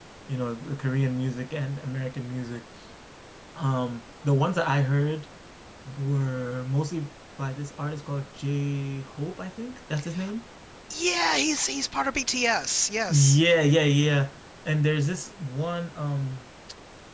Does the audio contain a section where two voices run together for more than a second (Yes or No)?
No